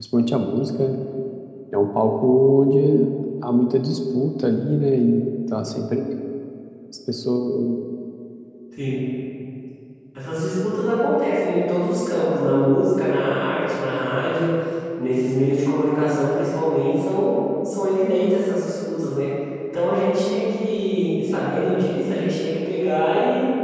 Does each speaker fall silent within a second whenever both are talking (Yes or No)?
Yes